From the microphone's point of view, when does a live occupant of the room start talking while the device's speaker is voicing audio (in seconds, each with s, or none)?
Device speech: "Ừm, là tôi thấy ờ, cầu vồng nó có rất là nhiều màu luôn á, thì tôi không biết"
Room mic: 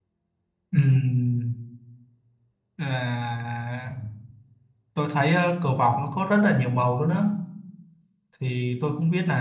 none